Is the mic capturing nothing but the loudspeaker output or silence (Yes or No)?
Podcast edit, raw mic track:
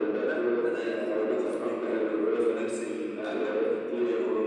Yes